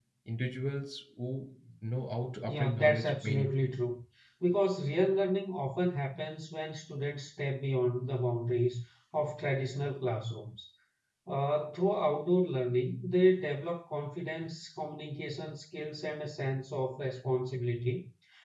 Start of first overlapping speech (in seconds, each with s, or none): 2.5 s